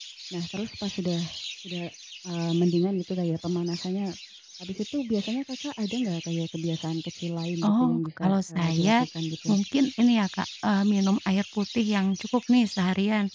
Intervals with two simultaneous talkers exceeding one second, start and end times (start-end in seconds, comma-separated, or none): 7.6-9.1